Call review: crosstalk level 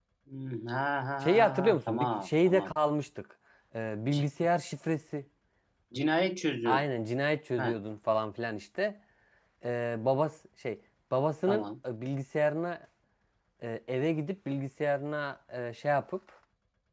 present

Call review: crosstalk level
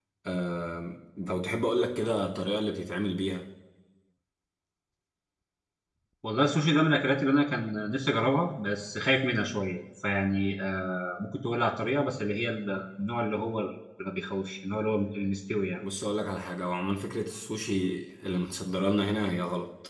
none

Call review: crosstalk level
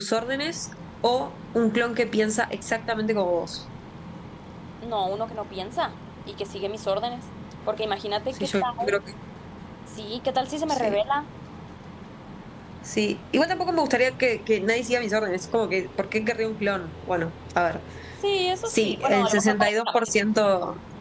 present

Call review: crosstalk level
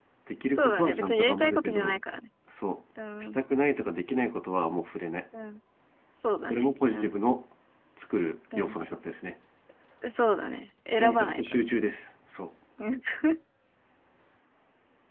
present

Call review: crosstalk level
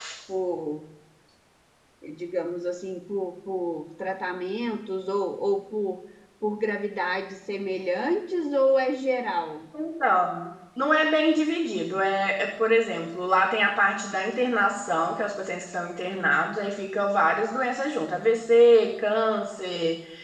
none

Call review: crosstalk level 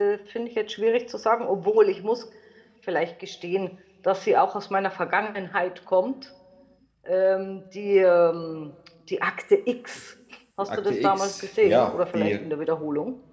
present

